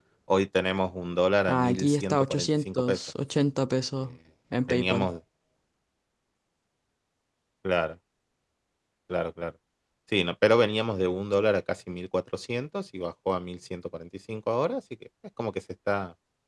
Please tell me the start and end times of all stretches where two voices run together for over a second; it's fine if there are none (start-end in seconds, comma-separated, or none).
1.5-3.0